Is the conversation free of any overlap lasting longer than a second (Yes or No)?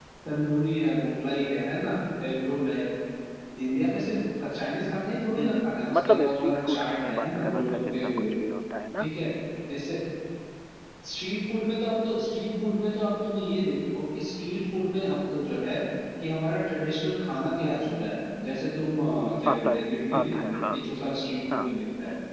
No